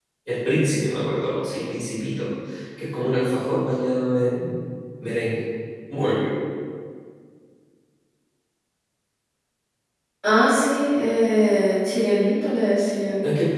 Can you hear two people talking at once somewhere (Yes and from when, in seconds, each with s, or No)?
No